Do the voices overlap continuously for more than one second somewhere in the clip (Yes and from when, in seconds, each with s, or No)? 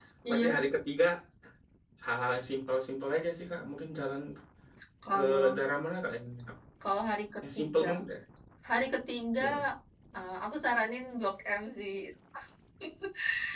No